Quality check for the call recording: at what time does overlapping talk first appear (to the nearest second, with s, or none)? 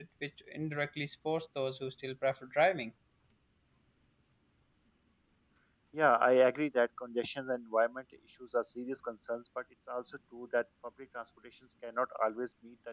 none